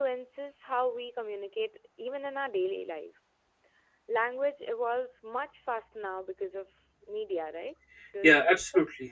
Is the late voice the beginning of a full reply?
Yes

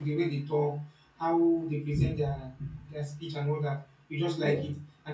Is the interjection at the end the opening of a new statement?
No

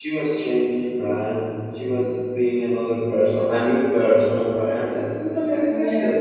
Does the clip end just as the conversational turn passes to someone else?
No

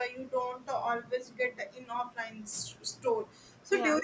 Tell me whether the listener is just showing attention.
Yes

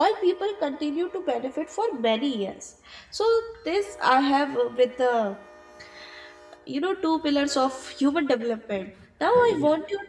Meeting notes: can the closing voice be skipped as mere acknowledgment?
Yes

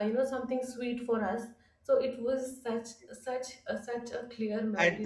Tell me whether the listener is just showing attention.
No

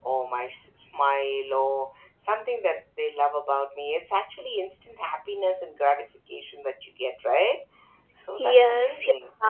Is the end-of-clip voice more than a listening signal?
Yes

